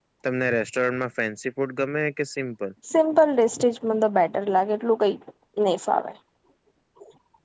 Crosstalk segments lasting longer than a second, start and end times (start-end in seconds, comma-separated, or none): none